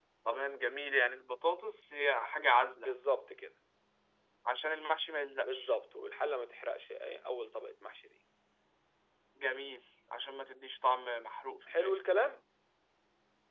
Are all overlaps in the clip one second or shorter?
Yes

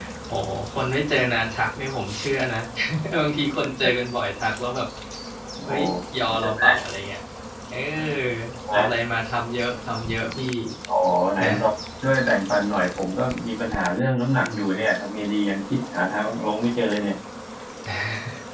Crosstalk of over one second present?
No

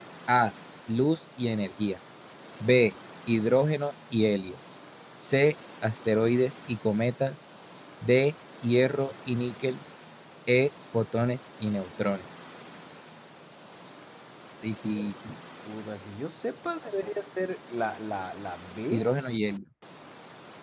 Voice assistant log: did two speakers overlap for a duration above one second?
No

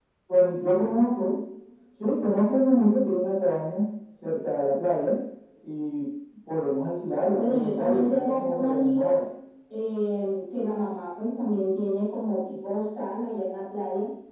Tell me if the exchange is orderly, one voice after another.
No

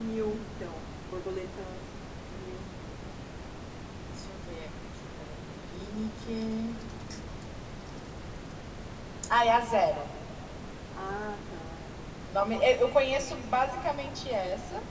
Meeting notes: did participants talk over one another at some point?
No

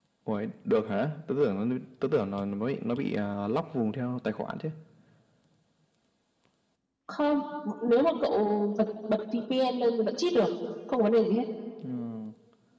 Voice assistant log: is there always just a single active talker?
Yes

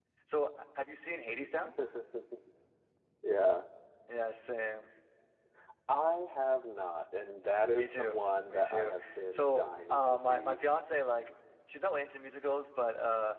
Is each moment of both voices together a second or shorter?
No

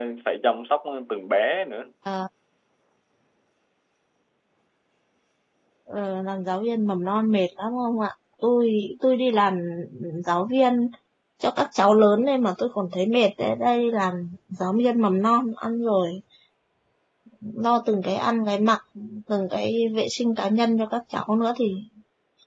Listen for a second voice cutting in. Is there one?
No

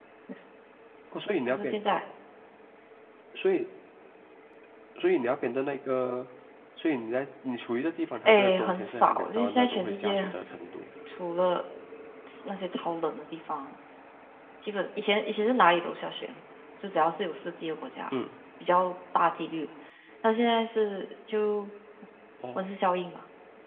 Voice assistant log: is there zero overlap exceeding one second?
No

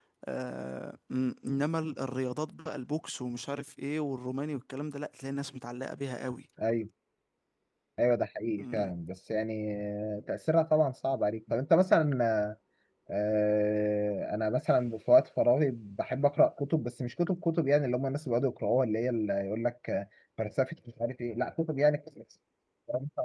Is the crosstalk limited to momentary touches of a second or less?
Yes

